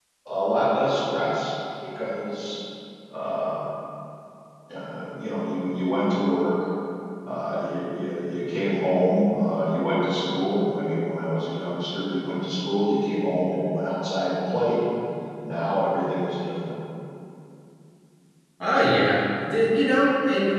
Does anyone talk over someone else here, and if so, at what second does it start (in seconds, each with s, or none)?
none